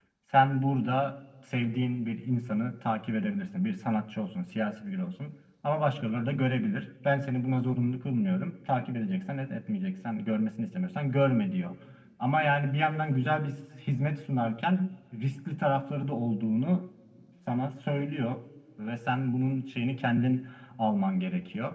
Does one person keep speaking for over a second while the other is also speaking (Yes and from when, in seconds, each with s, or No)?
No